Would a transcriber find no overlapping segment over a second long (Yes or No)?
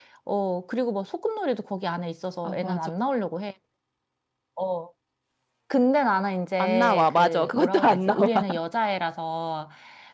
No